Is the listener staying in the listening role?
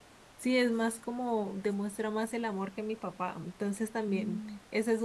Yes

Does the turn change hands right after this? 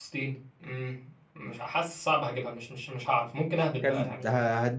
Yes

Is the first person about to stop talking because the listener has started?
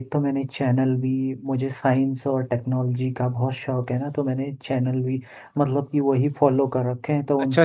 Yes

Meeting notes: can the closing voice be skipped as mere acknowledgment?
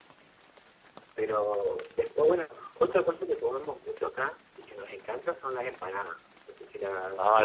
No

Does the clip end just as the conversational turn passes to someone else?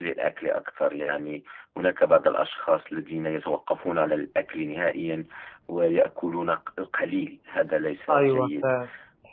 Yes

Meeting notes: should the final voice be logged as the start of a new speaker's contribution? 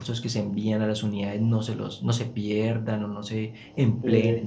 Yes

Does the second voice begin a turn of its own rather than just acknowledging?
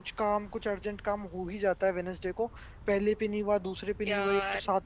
No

